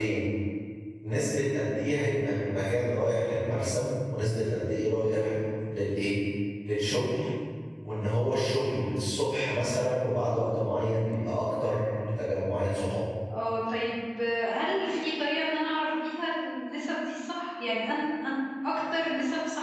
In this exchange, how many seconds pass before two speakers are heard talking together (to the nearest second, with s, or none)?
none